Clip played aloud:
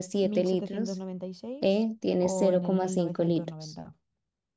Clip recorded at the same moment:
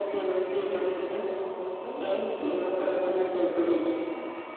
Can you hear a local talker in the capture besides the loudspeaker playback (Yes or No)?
No